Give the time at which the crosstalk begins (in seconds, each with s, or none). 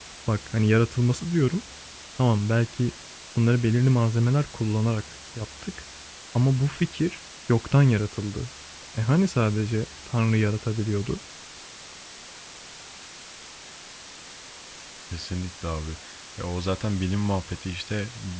none